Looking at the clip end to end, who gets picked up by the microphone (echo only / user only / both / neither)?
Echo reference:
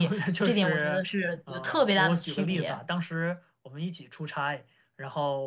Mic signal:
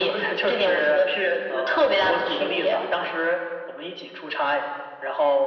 echo only